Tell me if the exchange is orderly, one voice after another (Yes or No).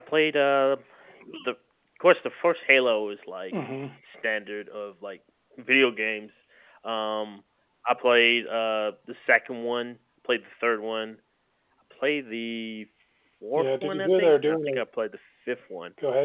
No